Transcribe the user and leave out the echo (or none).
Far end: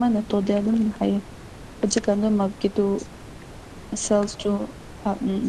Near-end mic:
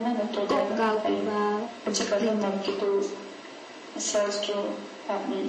ꯀꯣ ꯀꯥꯎꯒꯨꯝꯕ ꯎ ꯀ꯭ꯂꯤꯟ ꯇꯧꯒꯦ